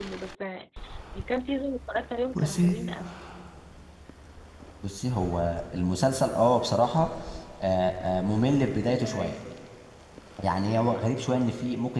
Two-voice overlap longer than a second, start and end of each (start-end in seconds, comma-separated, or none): none